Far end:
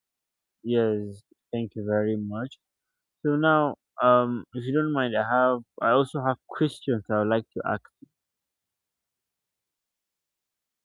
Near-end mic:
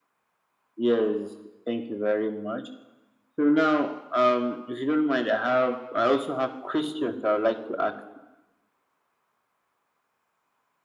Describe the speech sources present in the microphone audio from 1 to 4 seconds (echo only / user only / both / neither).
echo only